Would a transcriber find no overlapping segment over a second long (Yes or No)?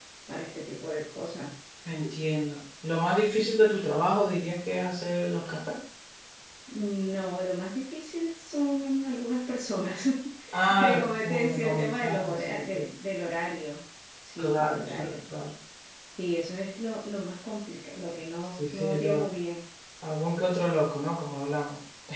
No